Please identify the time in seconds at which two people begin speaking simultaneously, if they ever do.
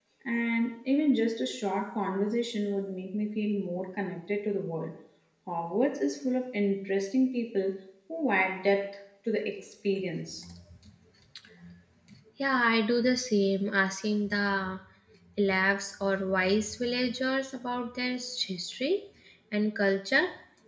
none

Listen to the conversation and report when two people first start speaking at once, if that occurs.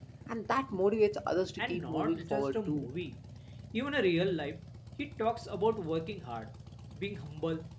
1.6 s

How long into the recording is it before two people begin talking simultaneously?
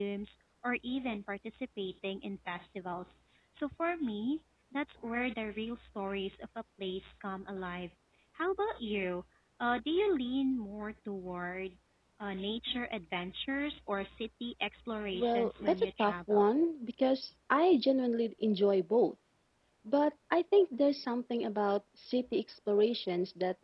15.1 s

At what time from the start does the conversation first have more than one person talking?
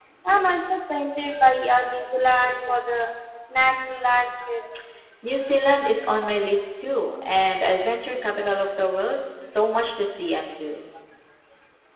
none

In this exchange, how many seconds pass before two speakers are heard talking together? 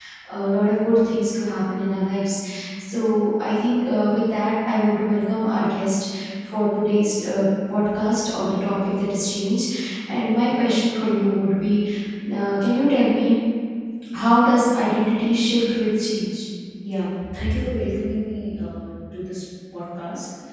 none

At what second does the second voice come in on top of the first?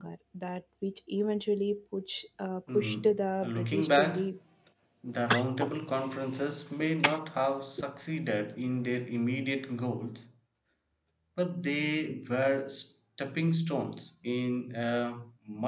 2.7 s

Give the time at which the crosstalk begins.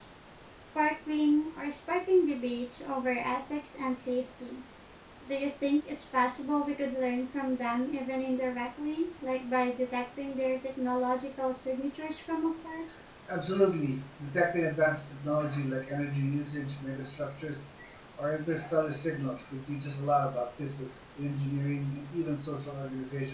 none

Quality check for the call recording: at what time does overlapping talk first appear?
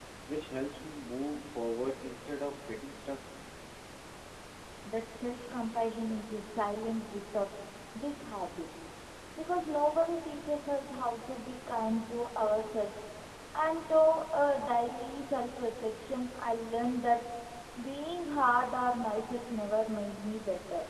none

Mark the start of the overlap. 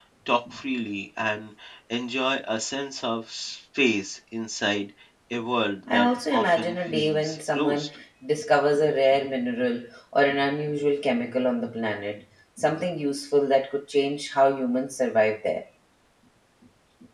5.9 s

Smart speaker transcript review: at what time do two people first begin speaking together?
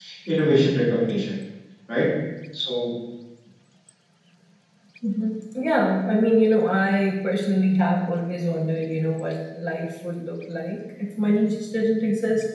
none

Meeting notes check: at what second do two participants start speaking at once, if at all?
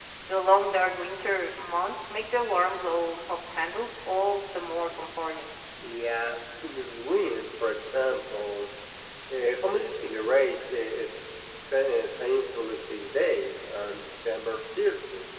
none

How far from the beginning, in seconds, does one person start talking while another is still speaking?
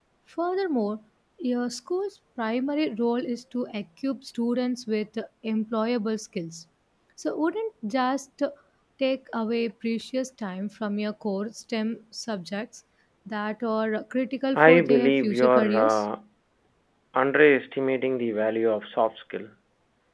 14.6 s

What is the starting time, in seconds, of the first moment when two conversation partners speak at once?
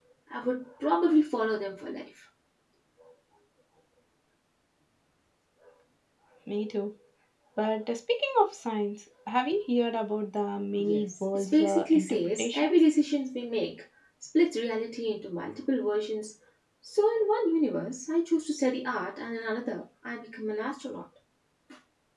10.8 s

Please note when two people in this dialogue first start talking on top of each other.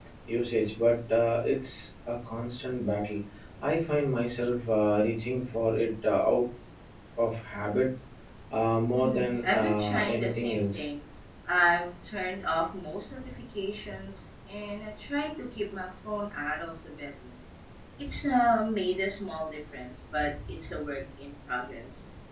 8.9 s

